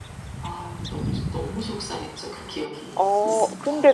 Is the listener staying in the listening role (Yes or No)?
No